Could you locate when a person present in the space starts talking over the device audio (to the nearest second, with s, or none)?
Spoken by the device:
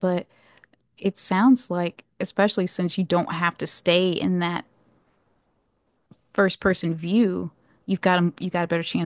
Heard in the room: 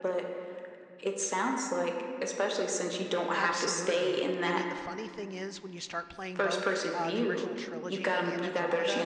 3 s